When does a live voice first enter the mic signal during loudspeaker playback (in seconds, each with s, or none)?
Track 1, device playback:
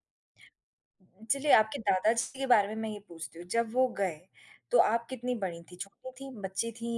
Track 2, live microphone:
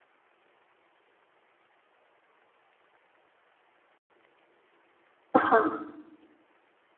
5.3 s